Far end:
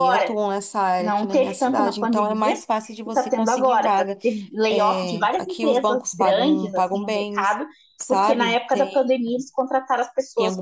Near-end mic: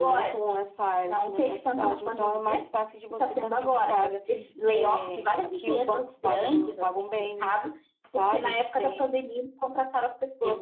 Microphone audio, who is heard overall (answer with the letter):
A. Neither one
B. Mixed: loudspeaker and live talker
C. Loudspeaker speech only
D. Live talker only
C